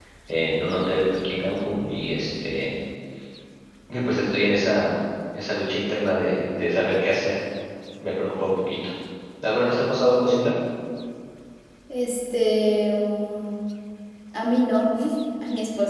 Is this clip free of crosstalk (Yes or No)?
Yes